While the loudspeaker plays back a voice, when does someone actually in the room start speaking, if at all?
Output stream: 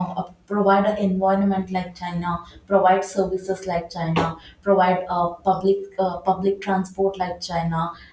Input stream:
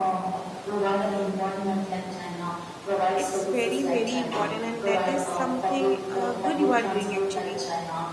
3.1 s

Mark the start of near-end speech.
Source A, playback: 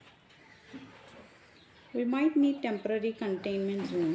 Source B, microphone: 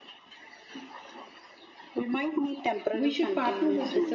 2.9 s

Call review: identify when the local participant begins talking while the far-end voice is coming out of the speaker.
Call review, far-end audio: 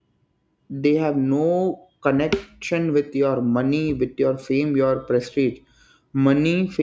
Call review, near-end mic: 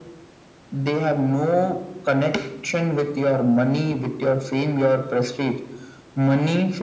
none

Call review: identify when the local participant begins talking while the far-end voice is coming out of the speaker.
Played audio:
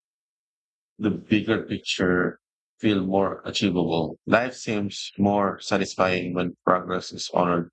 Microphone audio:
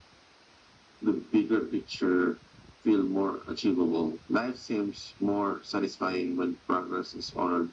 none

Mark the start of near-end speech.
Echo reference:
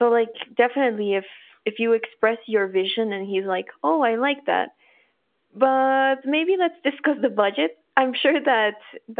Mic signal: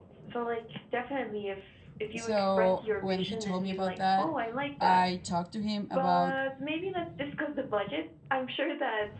2.1 s

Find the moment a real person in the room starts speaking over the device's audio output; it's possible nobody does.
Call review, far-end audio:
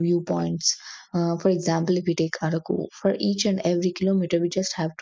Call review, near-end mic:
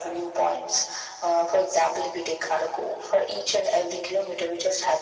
none

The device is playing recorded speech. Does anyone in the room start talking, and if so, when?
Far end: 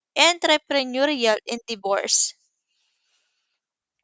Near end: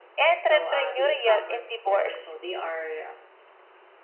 0.4 s

